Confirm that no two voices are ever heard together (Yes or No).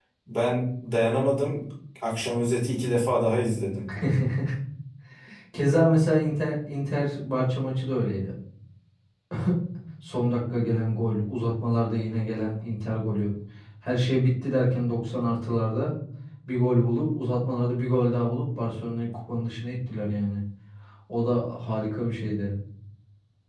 Yes